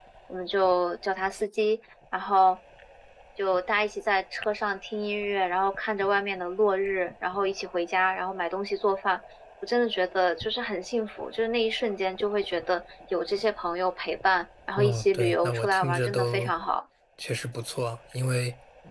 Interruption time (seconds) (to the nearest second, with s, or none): 15 s